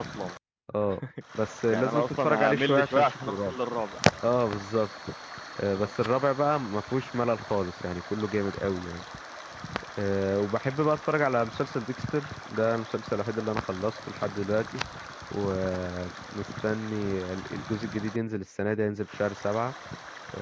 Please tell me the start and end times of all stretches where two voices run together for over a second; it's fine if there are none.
1.7-3.5

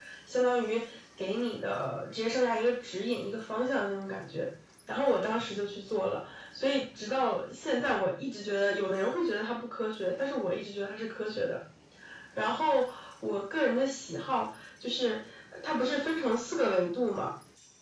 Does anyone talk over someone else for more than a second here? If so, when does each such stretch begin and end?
none

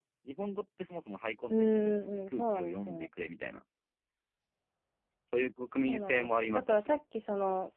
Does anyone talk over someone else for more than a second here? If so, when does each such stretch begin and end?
1.5-3.1, 5.7-7.0

